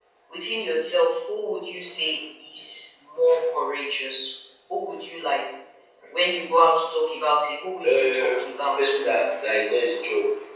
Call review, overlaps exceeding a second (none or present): present